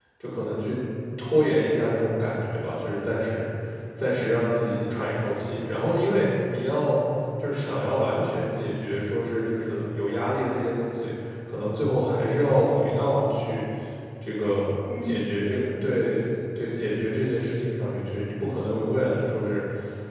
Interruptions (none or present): present